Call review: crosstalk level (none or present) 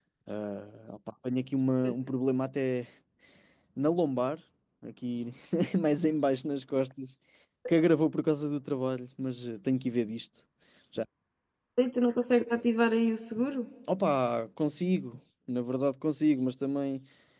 none